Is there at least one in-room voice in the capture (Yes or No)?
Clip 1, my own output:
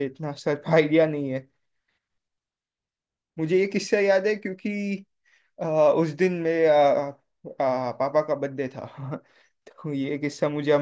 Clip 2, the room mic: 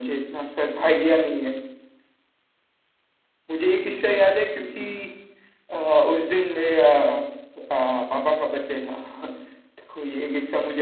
No